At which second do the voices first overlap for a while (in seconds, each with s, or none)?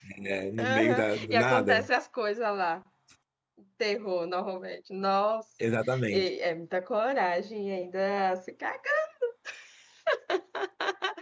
0.6 s